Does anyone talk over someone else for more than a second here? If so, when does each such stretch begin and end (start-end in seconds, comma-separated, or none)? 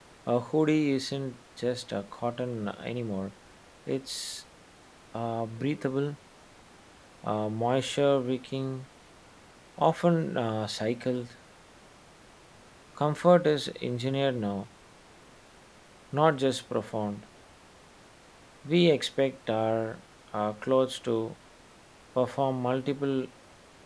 none